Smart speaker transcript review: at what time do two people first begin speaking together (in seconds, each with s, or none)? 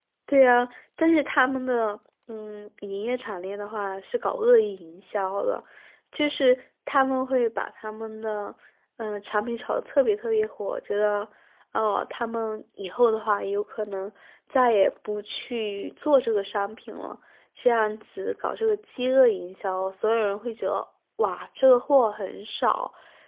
none